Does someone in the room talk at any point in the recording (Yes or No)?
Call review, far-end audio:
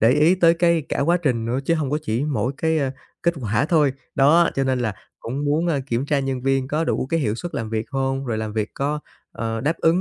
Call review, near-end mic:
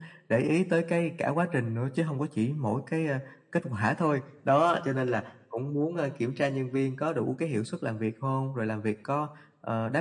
No